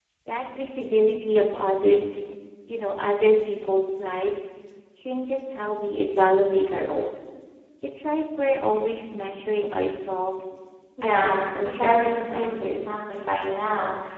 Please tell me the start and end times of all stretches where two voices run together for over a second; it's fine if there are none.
11.0-12.8

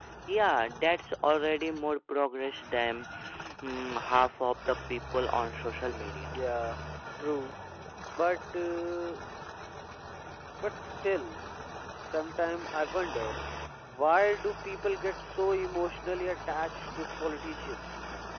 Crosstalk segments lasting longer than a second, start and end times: none

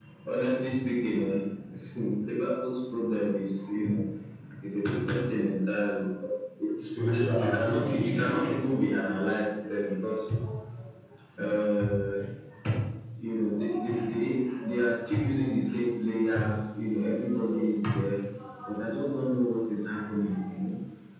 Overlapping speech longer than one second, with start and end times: 7.0-8.5

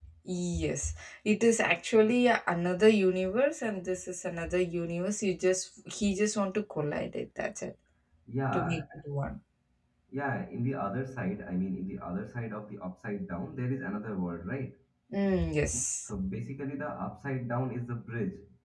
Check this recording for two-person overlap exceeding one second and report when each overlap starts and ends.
none

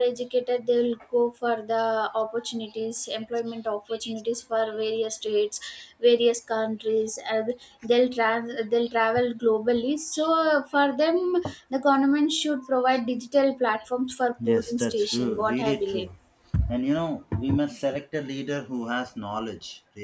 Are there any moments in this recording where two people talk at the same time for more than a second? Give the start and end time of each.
14.5-16.1

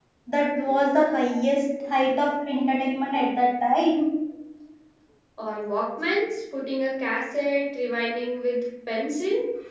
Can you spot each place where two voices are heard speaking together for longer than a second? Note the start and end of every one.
none

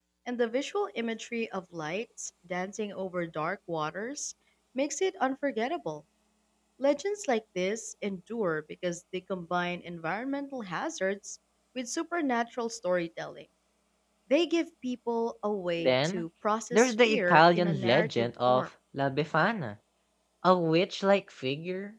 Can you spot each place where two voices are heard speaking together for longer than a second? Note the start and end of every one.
16.7-18.6

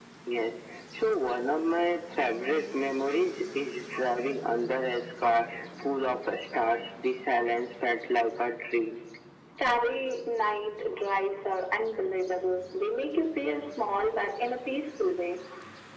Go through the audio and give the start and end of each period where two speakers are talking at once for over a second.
none

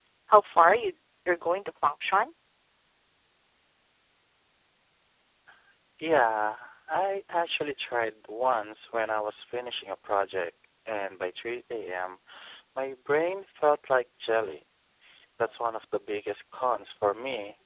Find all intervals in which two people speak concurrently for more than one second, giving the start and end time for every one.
none

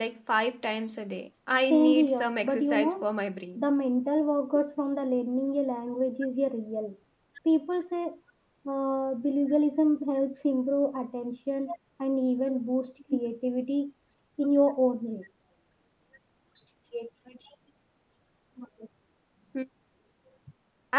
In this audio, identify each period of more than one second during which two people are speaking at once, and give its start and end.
1.7-3.0

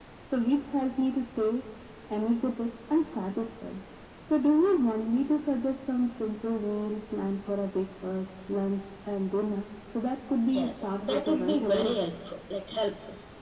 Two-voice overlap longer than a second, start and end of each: 10.5-12.0

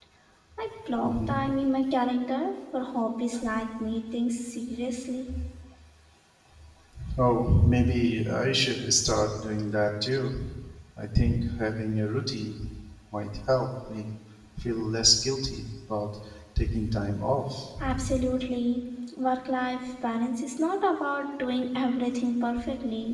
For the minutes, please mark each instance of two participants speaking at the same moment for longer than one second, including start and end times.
none

